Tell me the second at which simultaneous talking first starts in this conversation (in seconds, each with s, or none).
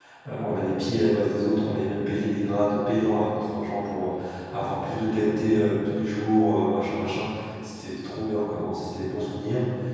none